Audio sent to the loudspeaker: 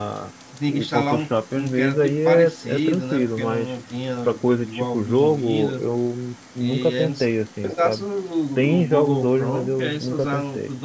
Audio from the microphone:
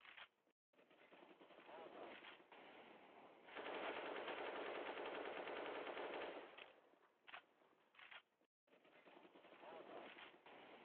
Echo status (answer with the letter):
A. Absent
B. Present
A